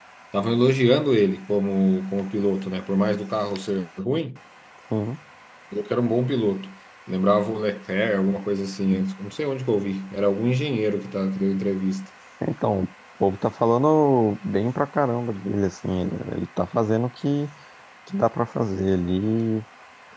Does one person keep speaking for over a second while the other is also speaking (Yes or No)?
No